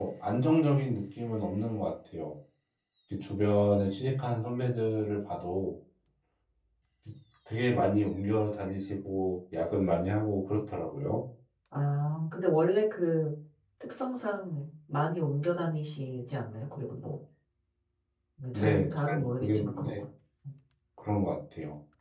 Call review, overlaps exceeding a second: present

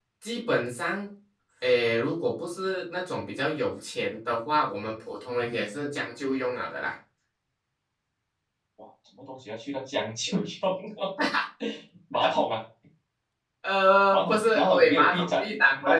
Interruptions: present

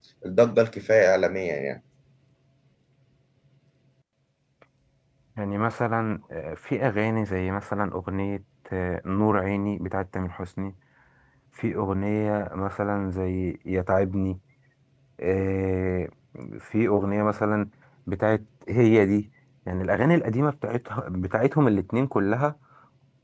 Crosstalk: none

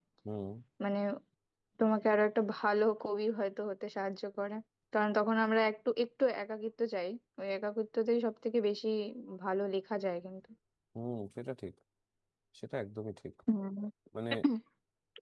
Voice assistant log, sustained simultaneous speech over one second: none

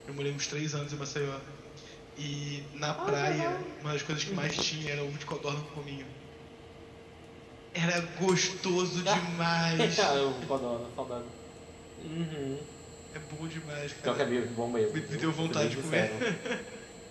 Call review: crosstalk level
present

